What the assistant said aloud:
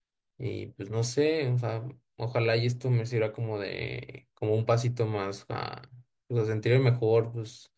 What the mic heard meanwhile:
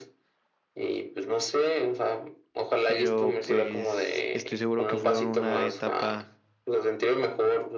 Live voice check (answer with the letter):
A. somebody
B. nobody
A